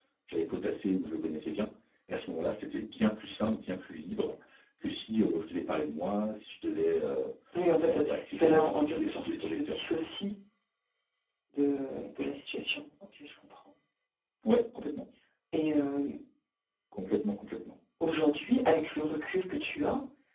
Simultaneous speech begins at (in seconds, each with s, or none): 7.8 s